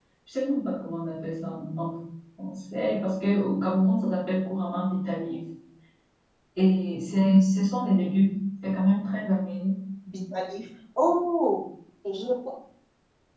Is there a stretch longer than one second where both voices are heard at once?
No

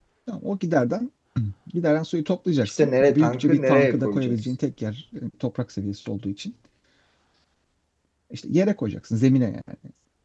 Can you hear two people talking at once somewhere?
Yes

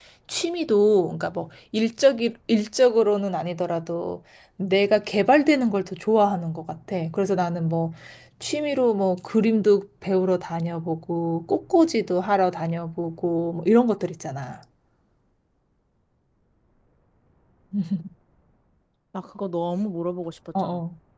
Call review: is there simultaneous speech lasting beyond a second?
No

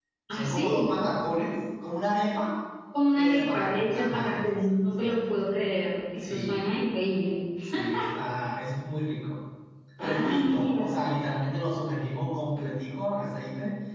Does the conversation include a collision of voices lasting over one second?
Yes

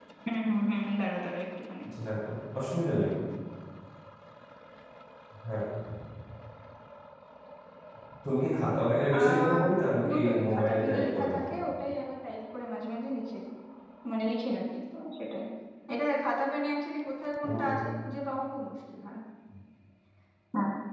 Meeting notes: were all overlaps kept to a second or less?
No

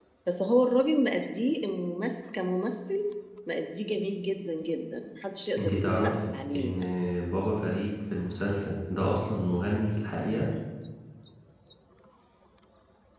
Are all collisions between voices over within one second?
No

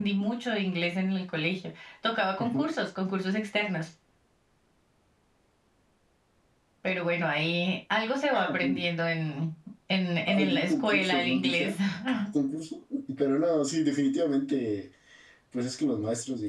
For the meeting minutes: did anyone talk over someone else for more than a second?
Yes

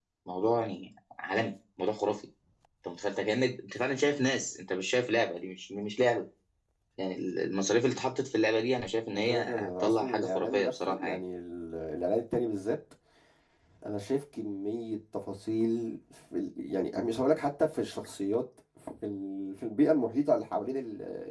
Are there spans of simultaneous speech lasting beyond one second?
Yes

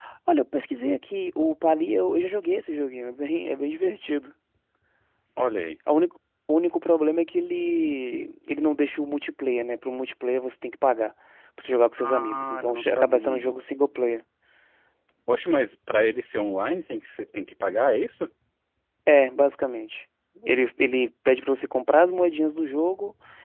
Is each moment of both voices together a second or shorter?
No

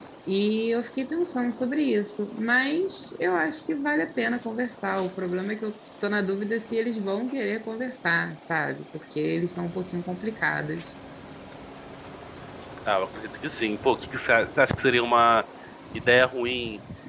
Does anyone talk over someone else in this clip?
No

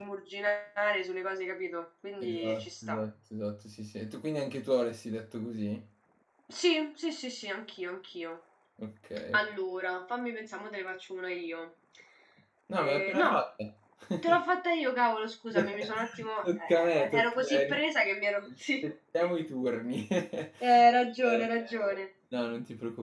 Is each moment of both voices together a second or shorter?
No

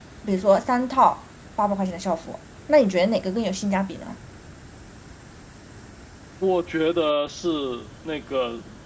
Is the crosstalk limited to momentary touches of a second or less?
Yes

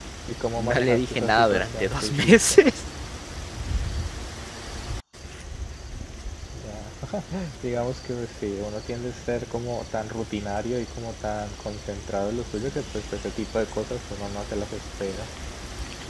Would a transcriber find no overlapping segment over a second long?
No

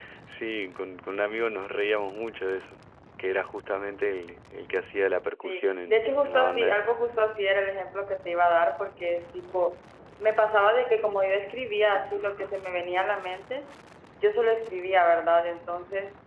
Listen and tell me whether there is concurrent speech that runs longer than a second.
Yes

